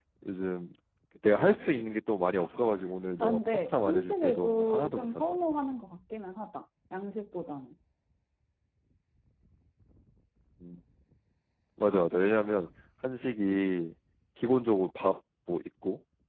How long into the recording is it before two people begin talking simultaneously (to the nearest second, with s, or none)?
3 s